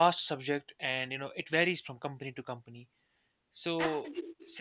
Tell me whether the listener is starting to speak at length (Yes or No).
No